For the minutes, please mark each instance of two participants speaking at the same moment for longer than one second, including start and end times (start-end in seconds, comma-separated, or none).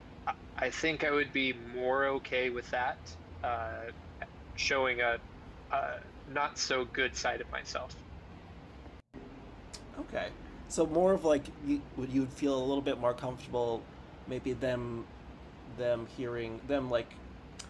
none